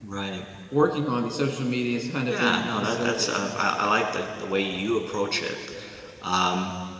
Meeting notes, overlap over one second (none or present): present